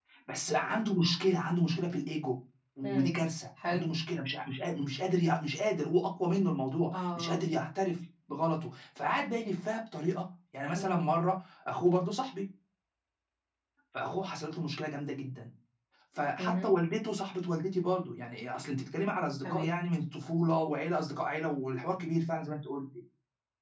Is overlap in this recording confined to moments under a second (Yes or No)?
Yes